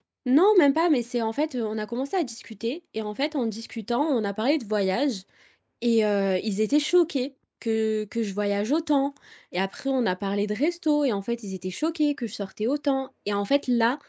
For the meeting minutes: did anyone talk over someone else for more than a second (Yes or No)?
No